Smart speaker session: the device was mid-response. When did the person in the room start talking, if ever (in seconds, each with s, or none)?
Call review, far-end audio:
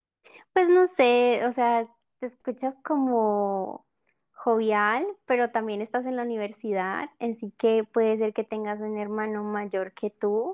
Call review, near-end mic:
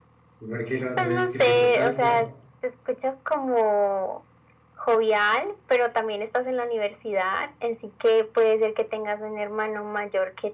0.5 s